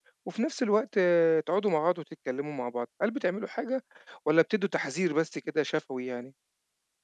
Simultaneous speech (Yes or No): No